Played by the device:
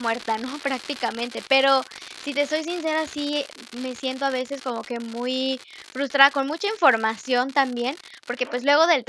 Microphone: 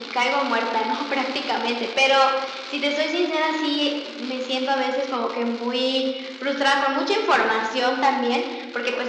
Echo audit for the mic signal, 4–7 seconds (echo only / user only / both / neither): echo only